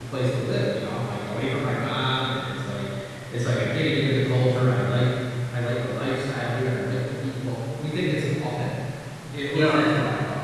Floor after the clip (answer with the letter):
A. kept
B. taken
B